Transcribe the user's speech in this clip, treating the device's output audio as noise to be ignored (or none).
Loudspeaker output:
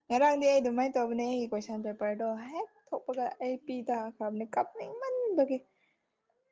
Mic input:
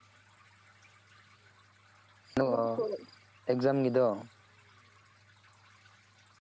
ꯑꯗ‌ꯣ ꯑꯦꯛꯖꯥꯝꯒꯤꯗ‌ꯣ